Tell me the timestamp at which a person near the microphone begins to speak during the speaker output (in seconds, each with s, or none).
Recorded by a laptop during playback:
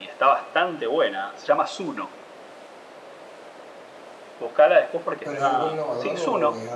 5.2 s